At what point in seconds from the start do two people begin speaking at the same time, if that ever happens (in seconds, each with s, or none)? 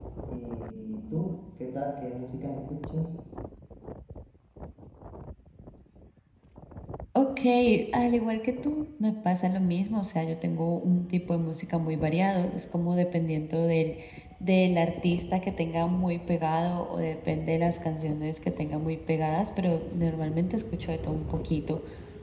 none